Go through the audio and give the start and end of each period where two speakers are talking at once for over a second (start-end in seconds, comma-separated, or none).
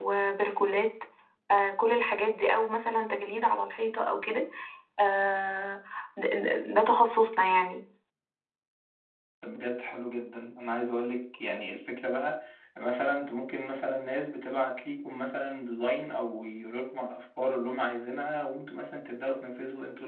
none